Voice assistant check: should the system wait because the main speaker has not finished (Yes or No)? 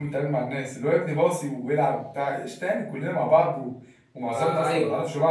Yes